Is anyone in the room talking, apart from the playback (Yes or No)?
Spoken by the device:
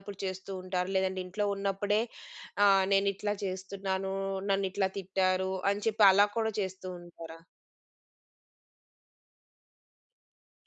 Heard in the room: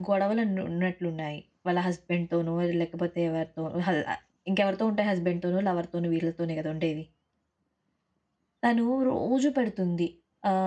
Yes